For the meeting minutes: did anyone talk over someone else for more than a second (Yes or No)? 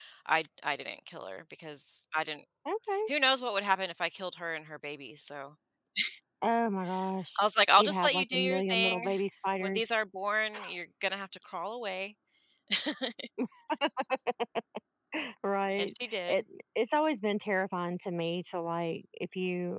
Yes